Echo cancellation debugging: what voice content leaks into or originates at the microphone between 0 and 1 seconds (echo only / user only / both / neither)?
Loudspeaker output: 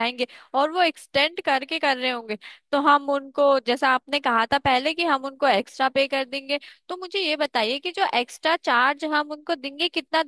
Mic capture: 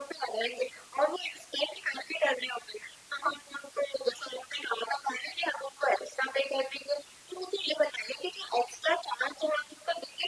echo only